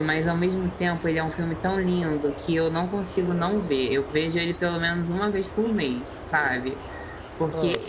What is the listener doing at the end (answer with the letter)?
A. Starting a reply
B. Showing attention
B